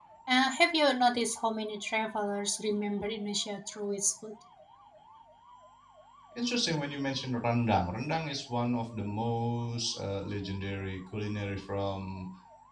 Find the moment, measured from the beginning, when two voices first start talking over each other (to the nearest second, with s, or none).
none